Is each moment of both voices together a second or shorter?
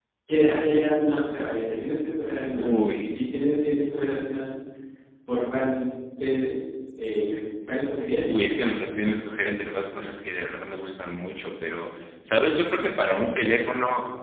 Yes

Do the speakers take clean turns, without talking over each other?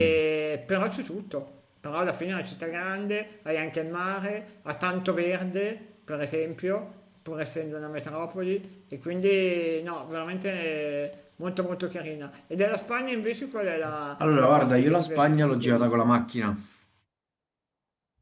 No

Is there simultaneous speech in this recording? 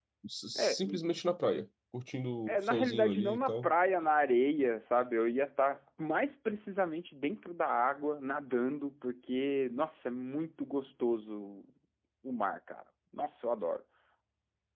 Yes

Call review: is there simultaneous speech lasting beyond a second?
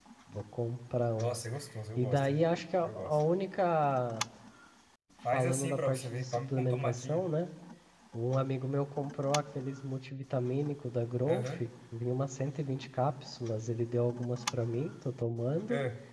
Yes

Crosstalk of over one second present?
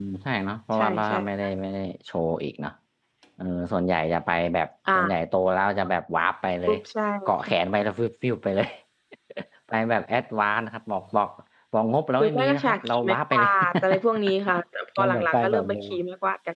Yes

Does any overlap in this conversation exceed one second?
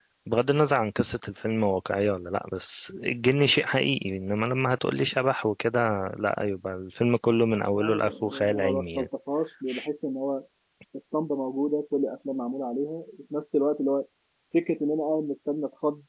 Yes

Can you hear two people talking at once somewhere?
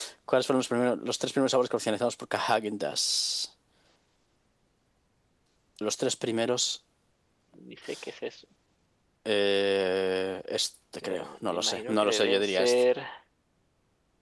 Yes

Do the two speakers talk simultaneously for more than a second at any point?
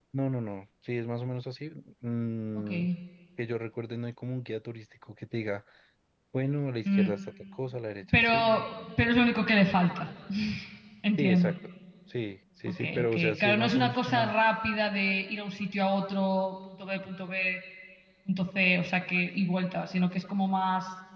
Yes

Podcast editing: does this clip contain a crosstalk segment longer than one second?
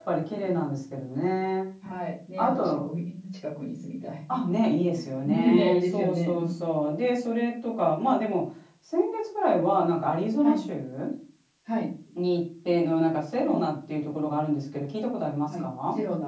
Yes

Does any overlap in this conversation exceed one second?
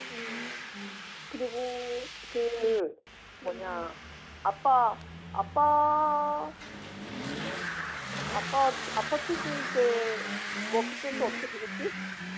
No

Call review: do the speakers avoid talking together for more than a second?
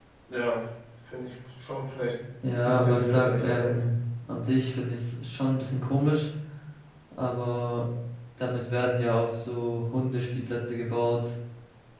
No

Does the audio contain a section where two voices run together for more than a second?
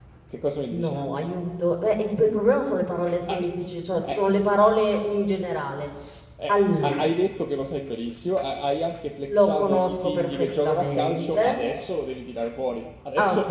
Yes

